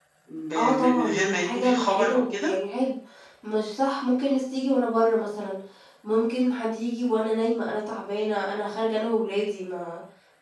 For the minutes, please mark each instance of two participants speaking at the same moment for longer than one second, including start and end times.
0.6-2.5

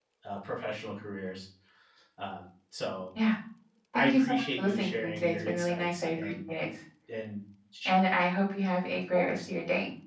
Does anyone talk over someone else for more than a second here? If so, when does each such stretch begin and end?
4.0-6.3

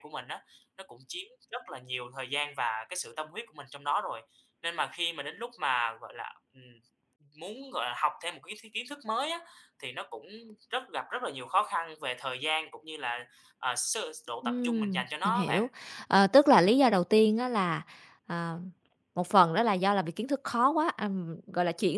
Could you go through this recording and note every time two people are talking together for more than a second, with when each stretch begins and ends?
14.4-15.6

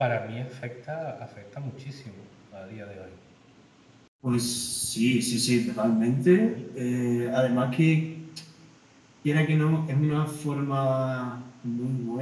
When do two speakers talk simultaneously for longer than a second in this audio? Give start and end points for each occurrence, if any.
none

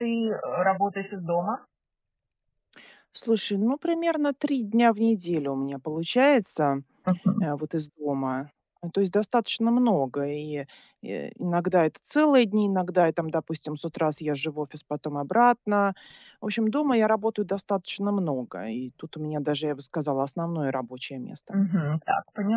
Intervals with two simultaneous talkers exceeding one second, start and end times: none

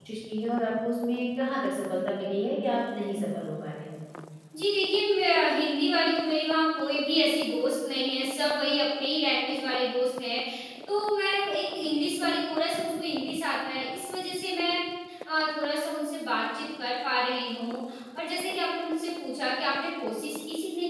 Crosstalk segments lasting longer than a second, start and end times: none

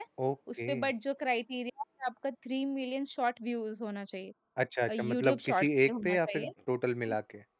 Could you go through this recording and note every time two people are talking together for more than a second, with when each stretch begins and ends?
4.9-6.5

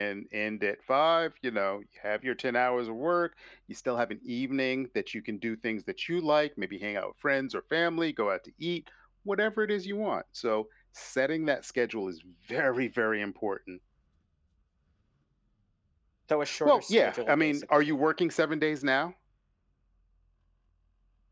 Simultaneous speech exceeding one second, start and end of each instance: 16.6-18.0

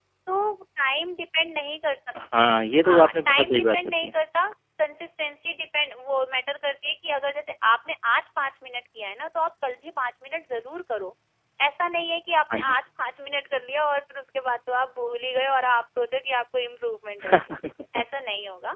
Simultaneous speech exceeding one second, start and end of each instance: 2.8-4.1

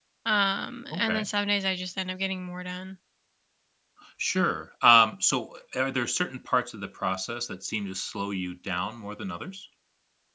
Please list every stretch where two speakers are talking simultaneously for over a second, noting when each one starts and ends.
none

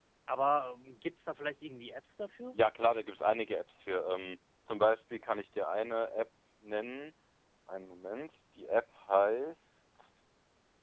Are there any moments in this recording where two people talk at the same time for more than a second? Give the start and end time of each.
none

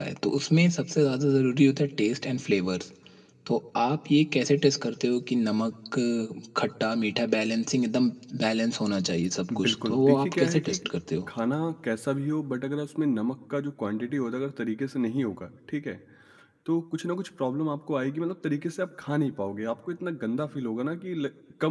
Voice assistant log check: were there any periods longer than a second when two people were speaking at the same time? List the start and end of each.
9.5-10.8

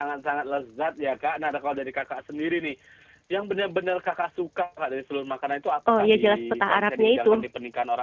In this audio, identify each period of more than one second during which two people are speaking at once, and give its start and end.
5.9-7.4

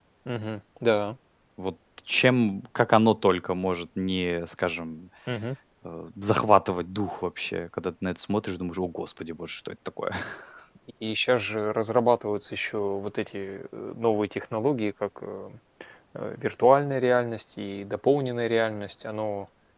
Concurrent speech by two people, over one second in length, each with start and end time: none

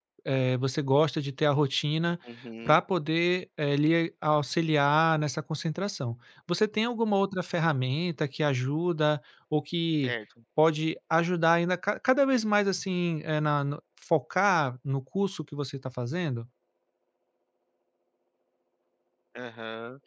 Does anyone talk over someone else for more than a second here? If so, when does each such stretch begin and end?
none

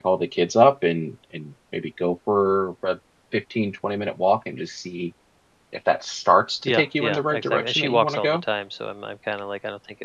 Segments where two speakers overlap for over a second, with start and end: 6.7-8.4

